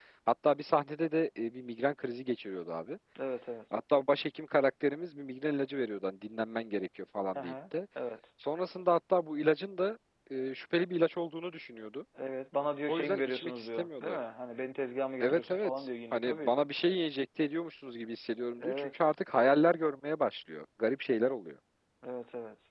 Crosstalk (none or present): present